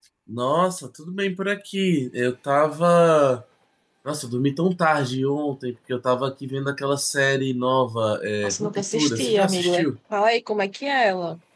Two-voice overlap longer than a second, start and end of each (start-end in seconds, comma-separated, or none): 8.4-9.7